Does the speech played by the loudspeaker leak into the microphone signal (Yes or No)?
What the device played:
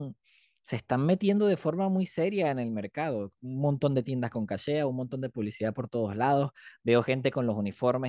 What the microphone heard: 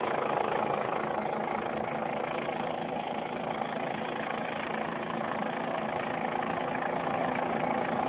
No